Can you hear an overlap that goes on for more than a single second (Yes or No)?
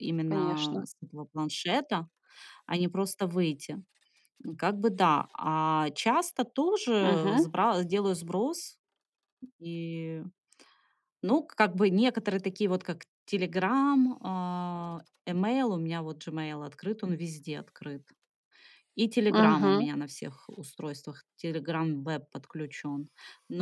No